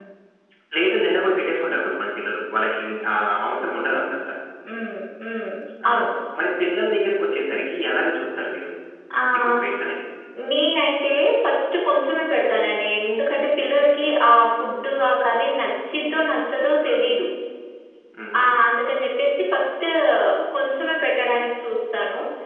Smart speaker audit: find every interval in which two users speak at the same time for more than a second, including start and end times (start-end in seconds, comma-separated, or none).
none